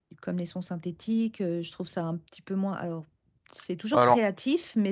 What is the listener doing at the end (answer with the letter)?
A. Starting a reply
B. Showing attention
B